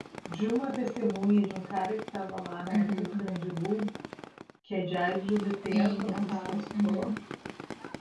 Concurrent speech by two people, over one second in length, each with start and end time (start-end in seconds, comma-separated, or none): 5.7-7.1